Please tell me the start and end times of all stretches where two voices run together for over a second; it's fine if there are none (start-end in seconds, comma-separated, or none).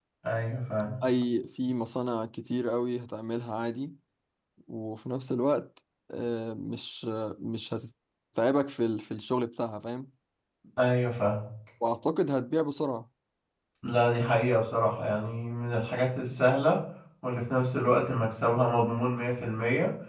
none